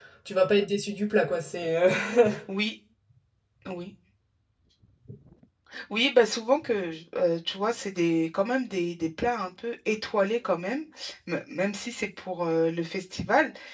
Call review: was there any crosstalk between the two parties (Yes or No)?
No